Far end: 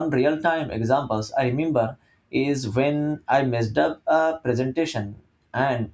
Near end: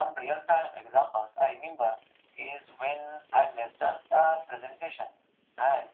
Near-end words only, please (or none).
none